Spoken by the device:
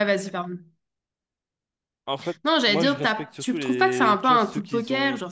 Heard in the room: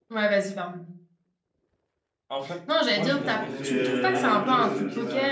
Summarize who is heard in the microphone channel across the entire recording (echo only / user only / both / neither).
both